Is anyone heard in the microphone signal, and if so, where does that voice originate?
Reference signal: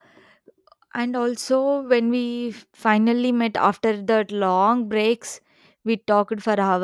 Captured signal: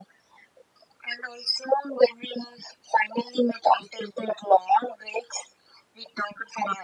echo only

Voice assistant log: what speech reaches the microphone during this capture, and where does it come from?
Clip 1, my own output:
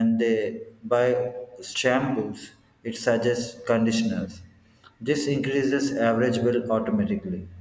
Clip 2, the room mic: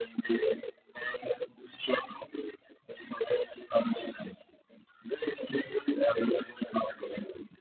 echo only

